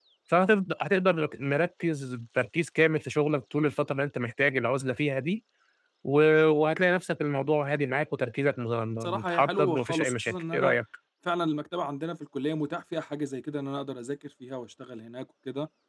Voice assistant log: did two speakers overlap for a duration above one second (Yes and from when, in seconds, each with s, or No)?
Yes, from 9.2 s